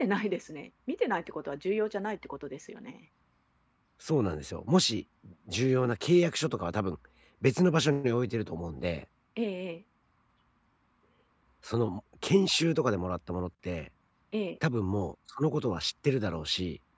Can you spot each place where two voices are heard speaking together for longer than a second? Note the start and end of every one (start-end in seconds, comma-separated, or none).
none